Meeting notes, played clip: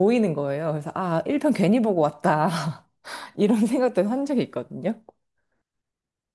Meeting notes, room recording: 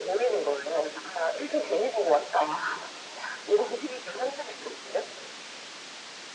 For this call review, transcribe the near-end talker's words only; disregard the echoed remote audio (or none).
none